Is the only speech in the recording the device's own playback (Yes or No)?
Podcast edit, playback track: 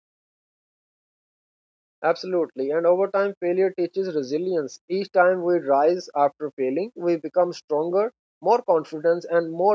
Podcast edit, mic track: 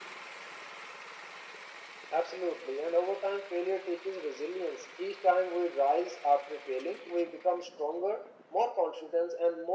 Yes